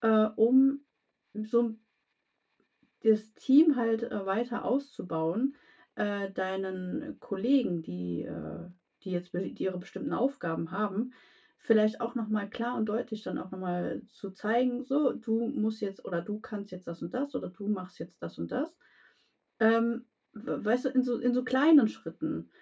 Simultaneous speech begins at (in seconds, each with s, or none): none